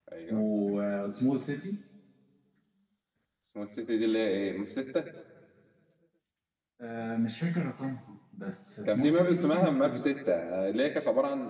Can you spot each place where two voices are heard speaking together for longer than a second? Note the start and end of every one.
8.8-10.1

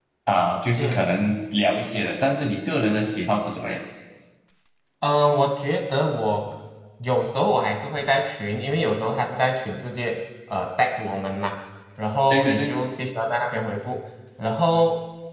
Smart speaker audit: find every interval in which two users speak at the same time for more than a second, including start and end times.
none

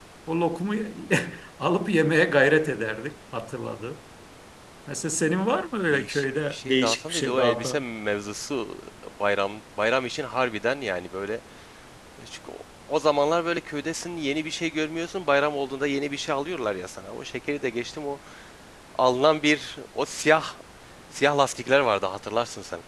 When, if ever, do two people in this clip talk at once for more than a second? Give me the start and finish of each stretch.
5.9-7.8

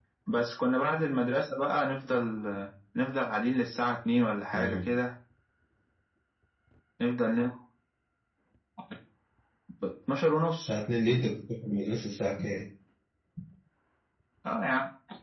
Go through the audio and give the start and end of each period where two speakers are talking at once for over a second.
none

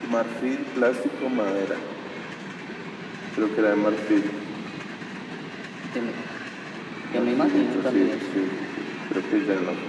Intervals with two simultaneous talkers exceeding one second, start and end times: 7.1-8.4

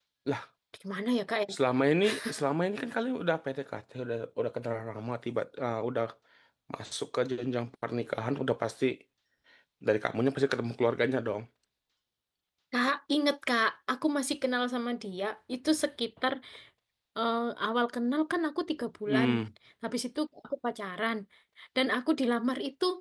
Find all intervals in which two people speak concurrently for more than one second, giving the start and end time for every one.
none

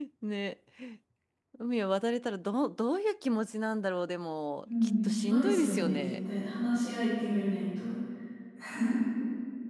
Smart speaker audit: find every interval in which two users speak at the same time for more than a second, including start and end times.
4.8-6.1

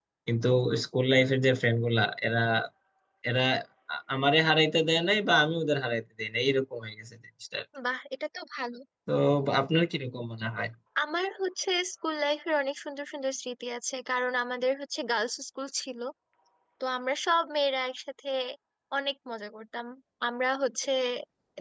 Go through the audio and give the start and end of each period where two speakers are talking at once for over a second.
none

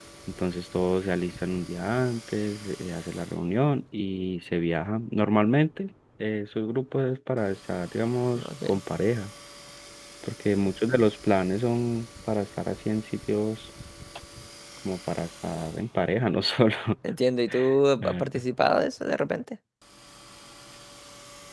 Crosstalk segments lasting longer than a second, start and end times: none

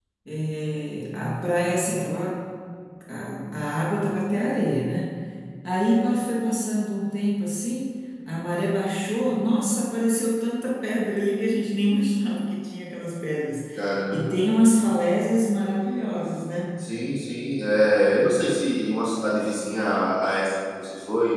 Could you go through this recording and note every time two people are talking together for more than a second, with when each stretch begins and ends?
none

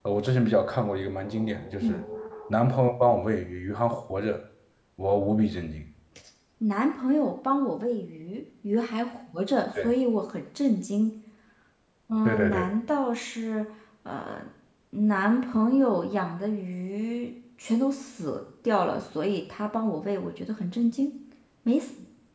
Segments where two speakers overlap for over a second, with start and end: none

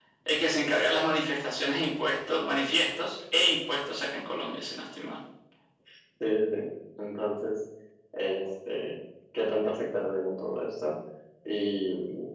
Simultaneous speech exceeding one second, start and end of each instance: none

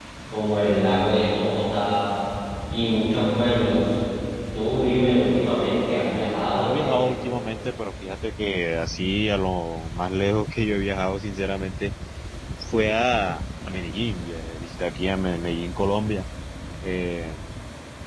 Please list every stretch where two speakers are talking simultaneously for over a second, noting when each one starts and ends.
none

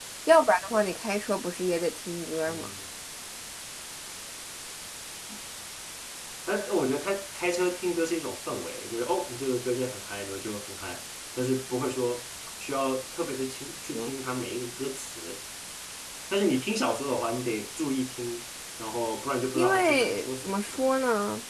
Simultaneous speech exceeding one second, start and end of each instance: 19.6-20.8

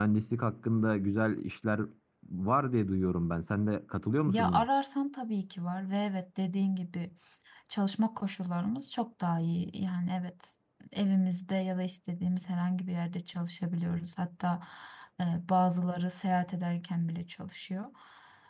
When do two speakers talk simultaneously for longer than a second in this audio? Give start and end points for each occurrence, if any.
none

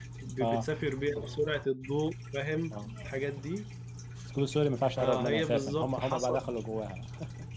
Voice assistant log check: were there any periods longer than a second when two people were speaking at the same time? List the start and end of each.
5.0-6.4

